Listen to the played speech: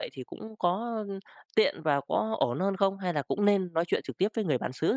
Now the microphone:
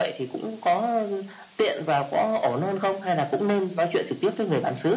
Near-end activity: none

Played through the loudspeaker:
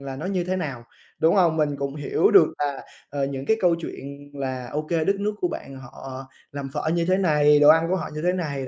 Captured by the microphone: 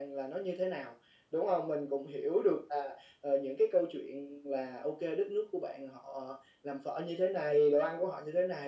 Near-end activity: none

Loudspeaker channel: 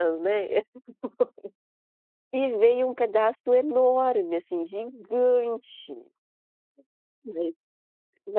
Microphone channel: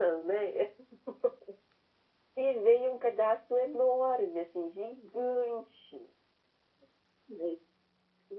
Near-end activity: none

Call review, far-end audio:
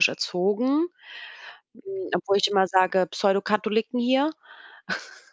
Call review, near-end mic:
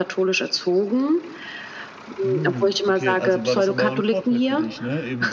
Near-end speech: present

